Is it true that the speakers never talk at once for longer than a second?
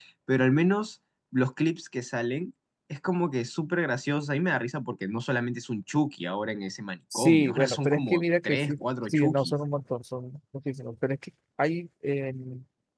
No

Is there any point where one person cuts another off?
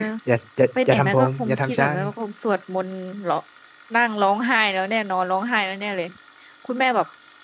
Yes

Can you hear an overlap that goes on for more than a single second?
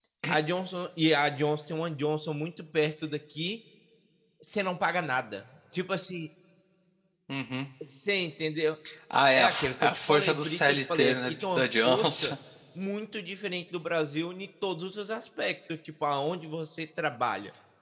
Yes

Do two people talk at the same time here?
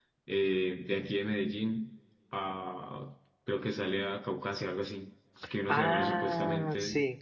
Yes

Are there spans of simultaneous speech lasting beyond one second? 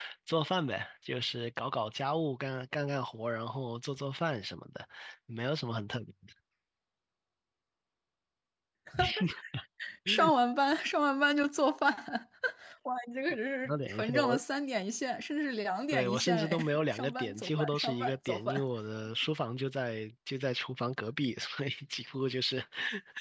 Yes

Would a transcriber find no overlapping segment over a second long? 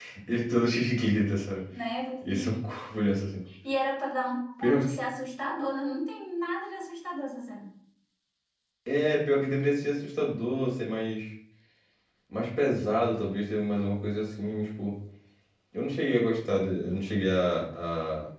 Yes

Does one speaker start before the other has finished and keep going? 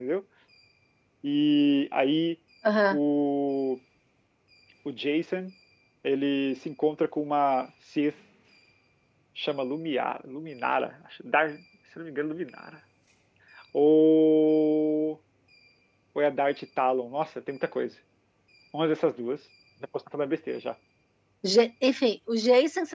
No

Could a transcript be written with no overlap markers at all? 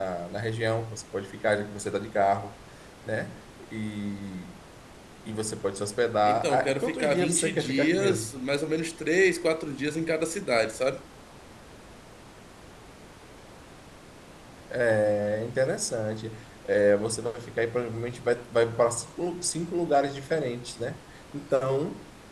No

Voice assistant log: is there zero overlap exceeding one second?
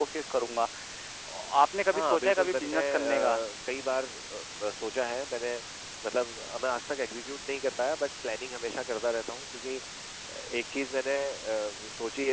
No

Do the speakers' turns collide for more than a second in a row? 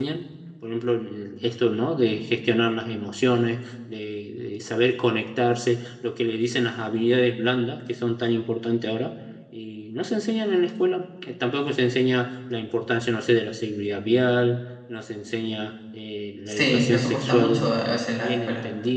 Yes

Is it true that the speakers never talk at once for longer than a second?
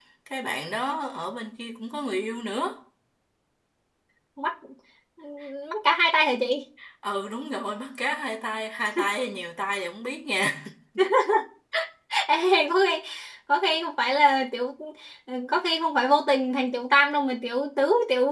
Yes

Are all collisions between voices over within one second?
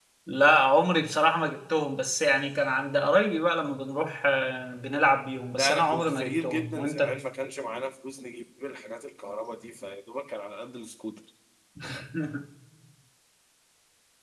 No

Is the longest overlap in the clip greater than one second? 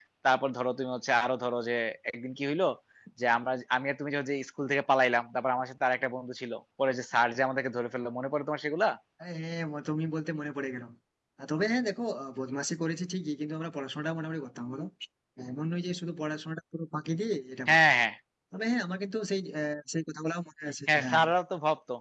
No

